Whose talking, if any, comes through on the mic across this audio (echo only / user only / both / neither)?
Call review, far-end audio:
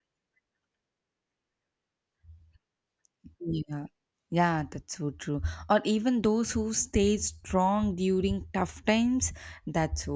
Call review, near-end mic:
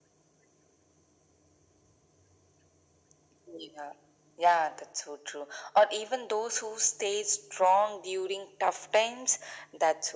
echo only